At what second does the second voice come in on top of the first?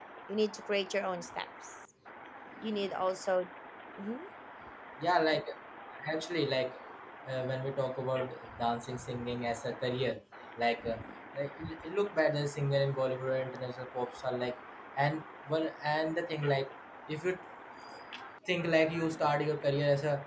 none

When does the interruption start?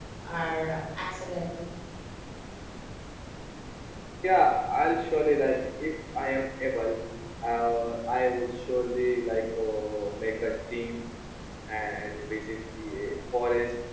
none

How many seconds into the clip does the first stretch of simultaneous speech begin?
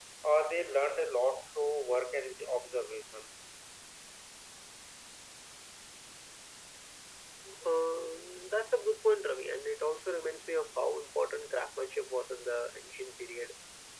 none

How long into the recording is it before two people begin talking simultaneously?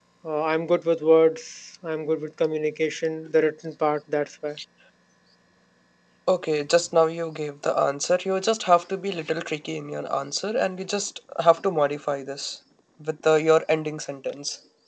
none

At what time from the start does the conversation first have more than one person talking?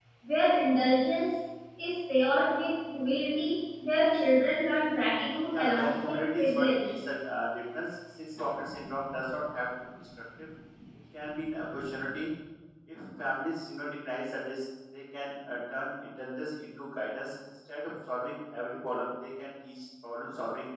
6 s

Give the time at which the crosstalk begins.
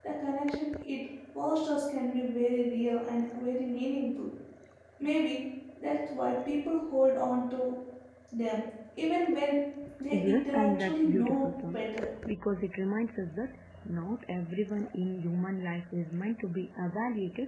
10 s

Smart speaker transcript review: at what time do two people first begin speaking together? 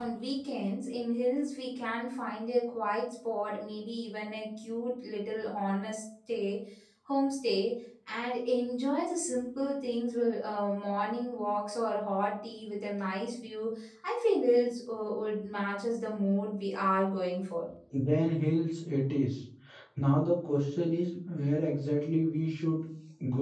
none

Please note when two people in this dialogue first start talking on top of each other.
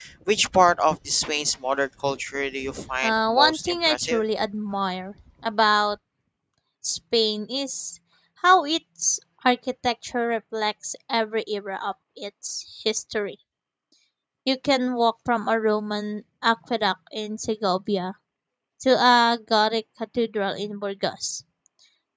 3 s

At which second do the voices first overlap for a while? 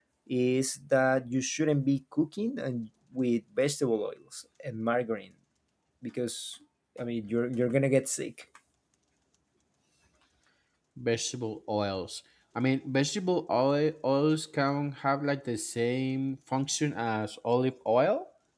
none

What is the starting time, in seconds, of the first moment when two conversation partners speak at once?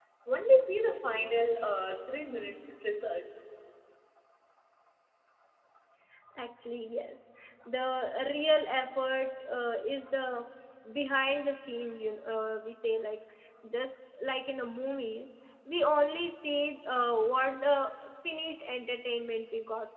none

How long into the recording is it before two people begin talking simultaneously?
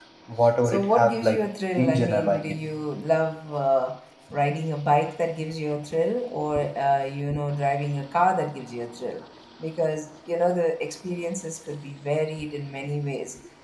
1 s

